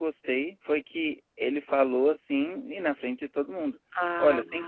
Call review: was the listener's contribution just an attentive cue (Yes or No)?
Yes